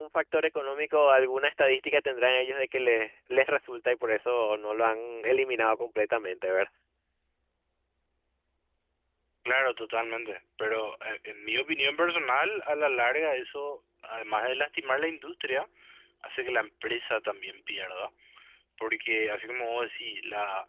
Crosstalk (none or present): none